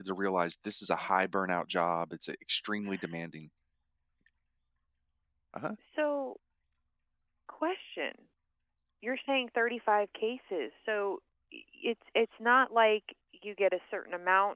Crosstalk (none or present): none